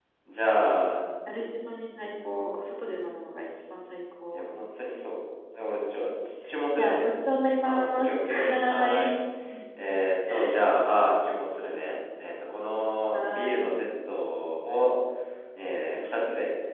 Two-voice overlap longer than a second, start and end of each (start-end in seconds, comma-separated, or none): 7.6-9.1